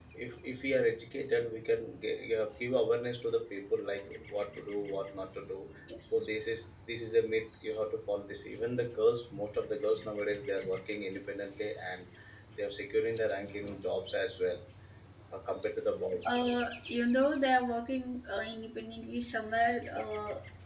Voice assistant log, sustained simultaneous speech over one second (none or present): none